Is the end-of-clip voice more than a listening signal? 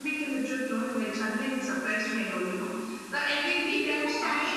Yes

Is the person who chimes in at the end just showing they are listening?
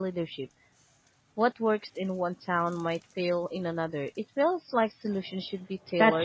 No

